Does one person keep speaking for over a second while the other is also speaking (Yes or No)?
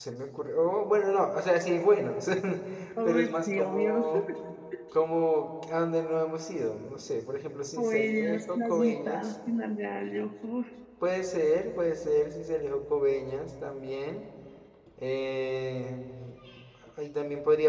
Yes